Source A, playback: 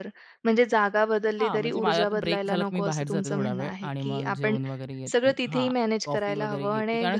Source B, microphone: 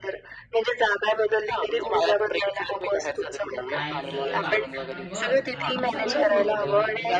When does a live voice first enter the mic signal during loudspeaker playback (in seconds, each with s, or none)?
3.7 s